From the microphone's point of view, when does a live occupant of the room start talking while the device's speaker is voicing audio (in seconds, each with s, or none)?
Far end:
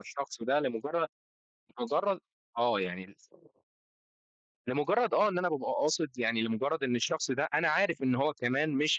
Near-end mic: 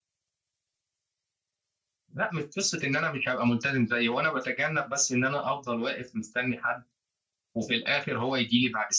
2.1 s